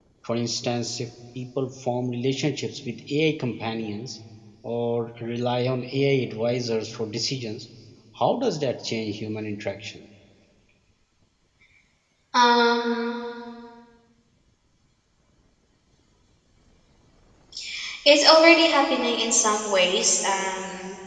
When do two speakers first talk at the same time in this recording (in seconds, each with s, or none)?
none